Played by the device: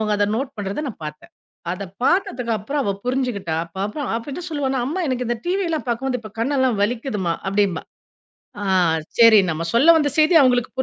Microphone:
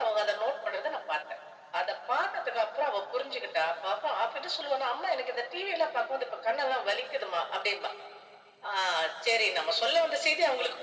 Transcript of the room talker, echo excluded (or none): none